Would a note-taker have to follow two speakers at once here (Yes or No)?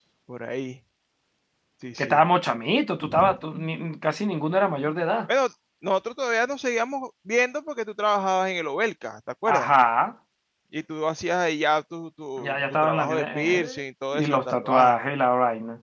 Yes